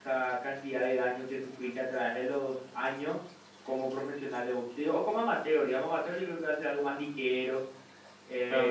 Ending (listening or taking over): taking over